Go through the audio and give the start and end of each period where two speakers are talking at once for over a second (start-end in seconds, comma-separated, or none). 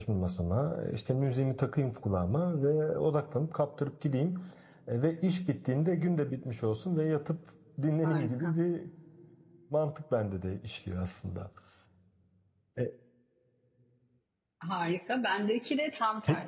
none